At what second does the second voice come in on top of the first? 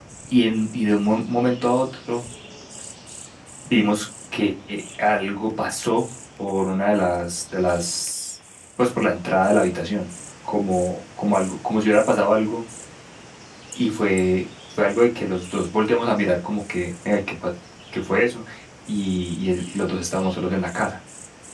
none

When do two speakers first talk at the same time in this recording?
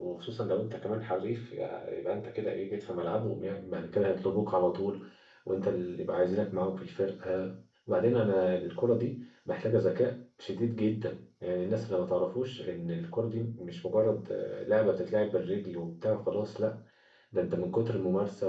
none

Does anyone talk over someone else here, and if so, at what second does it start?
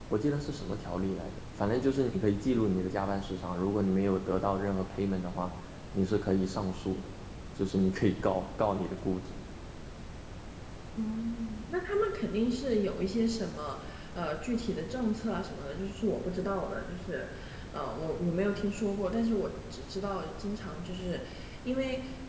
none

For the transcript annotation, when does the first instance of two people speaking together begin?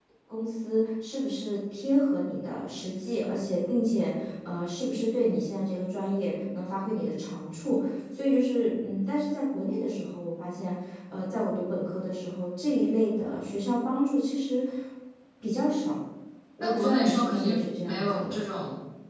17 s

